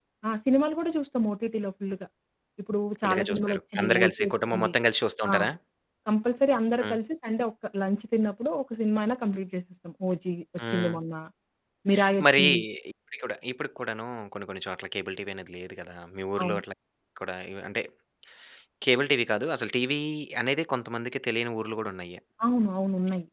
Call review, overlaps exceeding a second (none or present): present